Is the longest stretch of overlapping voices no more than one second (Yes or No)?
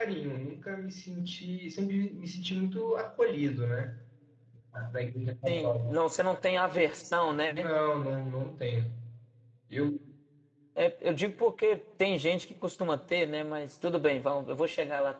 Yes